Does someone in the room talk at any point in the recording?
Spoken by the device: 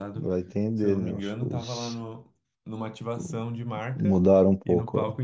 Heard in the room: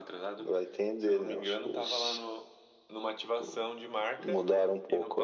No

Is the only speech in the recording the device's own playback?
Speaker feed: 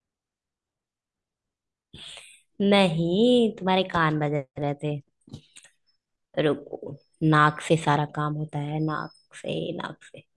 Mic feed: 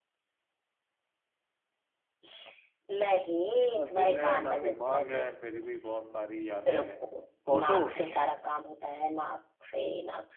No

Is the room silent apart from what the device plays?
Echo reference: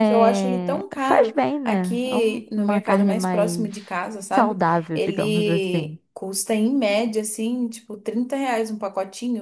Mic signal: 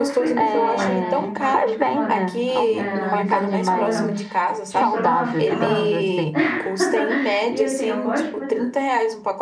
No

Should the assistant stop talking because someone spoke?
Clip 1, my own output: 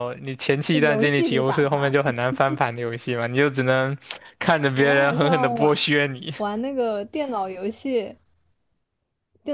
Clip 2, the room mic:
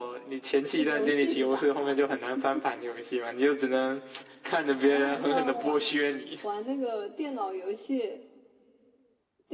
No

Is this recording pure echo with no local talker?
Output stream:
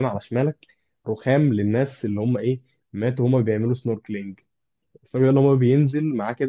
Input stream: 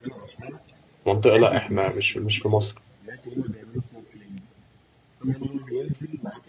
No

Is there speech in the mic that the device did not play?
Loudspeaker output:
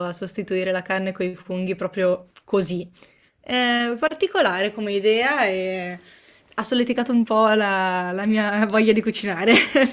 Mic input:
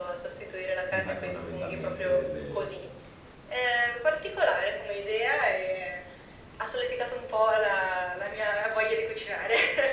Yes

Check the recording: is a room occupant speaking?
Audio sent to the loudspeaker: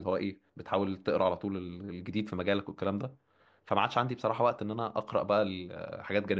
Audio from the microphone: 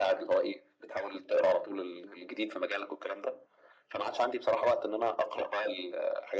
No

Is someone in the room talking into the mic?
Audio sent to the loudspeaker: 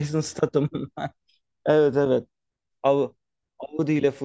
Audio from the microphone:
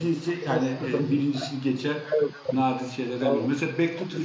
Yes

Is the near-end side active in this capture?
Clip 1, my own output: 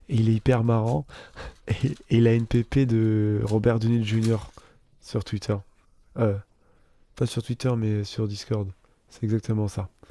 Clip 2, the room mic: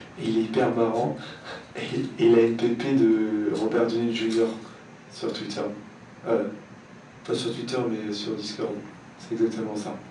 No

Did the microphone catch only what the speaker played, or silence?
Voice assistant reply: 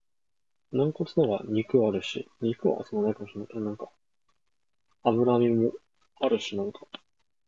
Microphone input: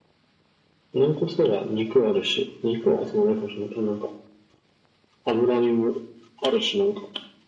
Yes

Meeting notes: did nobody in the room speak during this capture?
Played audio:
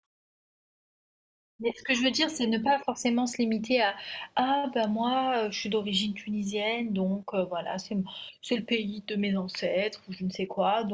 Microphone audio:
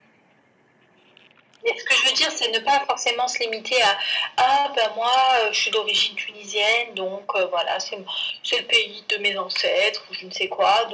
Yes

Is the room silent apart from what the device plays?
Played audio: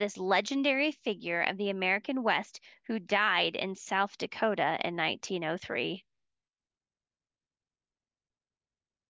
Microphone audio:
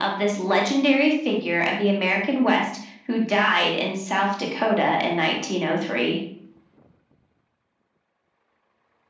Yes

